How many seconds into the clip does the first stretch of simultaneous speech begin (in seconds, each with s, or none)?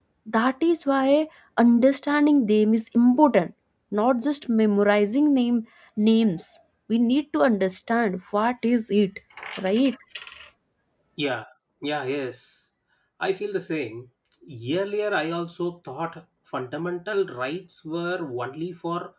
none